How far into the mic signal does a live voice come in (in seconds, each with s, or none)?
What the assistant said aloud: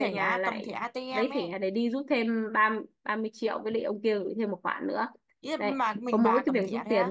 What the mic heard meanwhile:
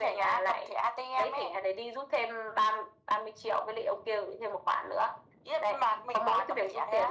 none